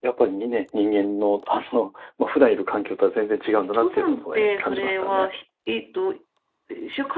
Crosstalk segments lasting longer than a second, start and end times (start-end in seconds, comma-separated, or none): 3.6-5.3